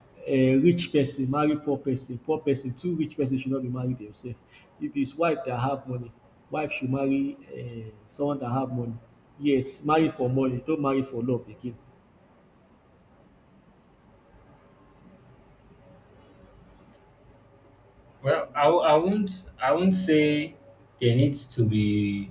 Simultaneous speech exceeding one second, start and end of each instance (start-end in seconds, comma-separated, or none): none